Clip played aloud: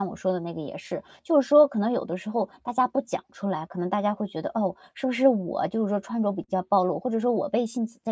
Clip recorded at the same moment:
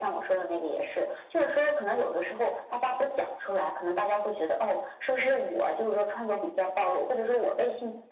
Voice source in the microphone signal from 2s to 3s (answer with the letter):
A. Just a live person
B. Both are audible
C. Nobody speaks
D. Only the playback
D